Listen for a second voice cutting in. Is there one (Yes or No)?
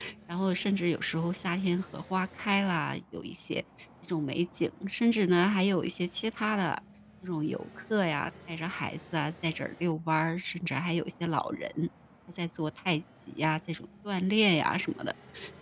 No